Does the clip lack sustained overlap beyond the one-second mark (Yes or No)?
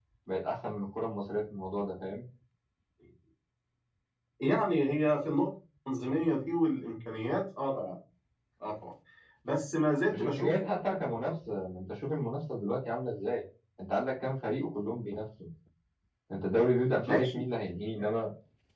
Yes